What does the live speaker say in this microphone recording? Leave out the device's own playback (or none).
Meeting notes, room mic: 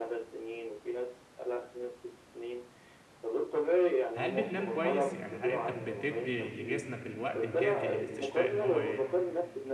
هل بتنام كويس؟ يعني هل أنت بتدّي لجسمك الوقت الكافي للاستشفاء إن هو ي-